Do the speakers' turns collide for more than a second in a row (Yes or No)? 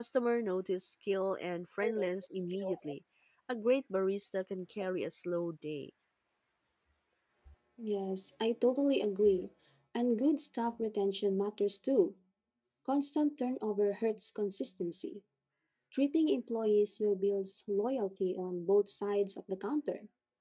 No